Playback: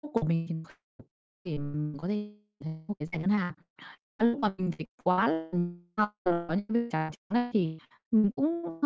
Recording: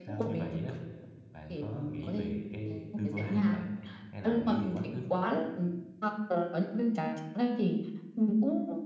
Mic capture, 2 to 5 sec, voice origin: both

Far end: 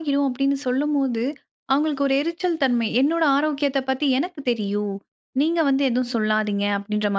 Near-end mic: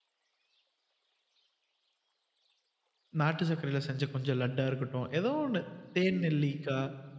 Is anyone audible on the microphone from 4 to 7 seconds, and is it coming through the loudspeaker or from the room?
user only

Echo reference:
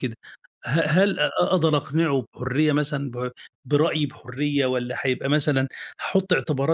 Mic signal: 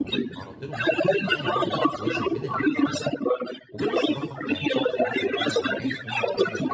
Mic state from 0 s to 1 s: both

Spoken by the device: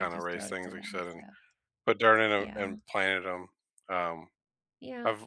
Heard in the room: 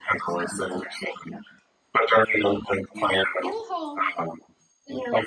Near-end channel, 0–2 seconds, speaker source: echo only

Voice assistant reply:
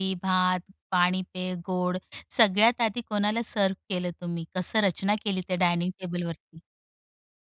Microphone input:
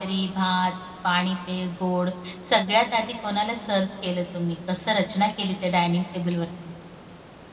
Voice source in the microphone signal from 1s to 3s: echo only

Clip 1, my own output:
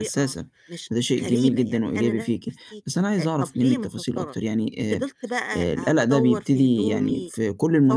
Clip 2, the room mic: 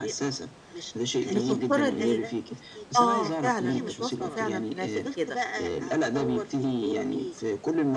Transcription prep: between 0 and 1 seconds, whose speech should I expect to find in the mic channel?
echo only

